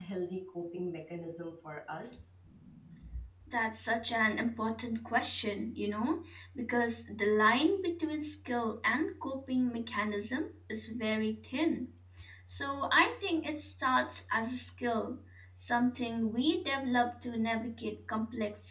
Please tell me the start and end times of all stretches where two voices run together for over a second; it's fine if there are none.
none

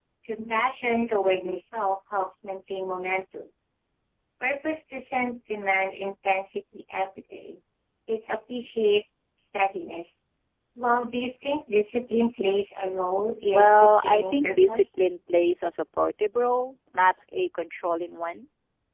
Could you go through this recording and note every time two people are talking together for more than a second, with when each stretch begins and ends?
13.5-14.9

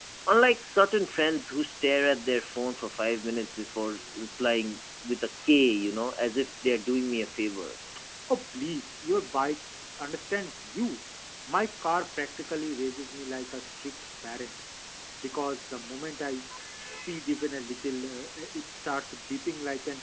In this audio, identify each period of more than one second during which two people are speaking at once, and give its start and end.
none

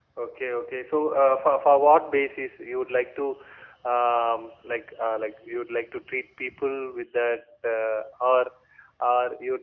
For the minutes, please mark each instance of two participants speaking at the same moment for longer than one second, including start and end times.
none

